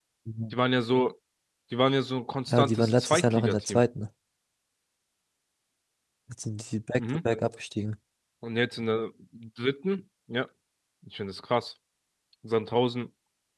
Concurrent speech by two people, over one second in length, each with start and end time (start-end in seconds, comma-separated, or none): 2.5-3.8